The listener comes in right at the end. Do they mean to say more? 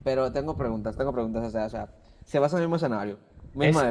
Yes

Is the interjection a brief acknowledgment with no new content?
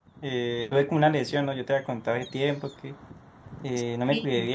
Yes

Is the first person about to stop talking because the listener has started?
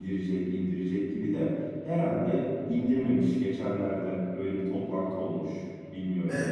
Yes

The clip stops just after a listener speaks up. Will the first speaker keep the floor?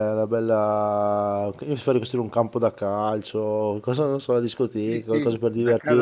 No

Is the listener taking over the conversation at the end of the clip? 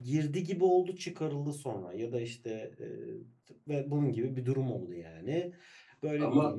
No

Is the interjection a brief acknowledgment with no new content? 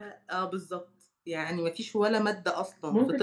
No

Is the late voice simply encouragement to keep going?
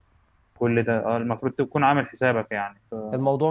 No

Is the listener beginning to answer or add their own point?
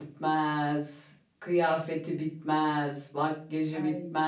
No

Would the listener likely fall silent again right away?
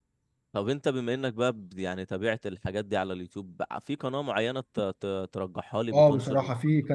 No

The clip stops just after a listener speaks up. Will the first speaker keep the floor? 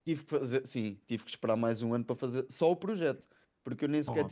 Yes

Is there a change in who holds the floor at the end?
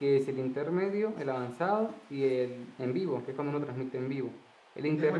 Yes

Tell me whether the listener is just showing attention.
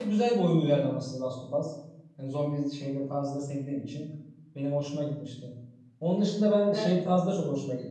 Yes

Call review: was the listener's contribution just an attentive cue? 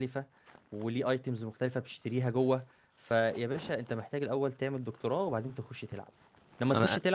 Yes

